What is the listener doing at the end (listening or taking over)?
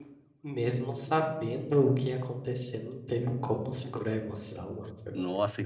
taking over